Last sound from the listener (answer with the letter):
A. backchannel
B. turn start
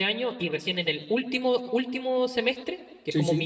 A